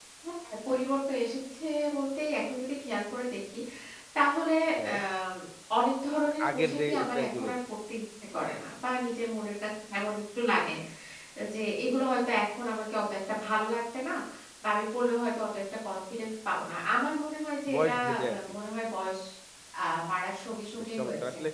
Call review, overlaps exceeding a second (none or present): present